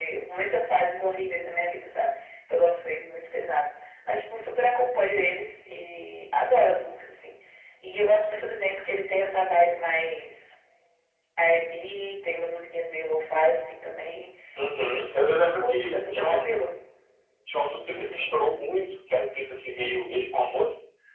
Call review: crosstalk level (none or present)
present